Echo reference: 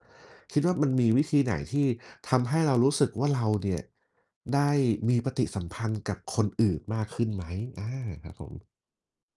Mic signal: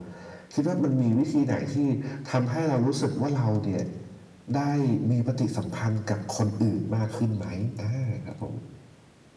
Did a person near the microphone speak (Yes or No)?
No